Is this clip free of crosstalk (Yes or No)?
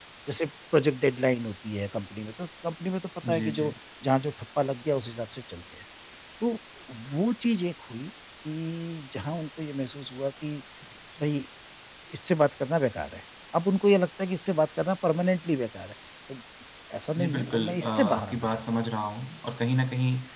No